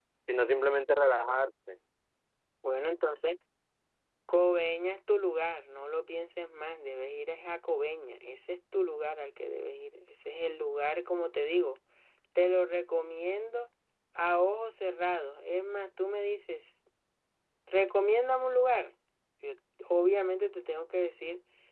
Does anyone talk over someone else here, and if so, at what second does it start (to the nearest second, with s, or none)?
none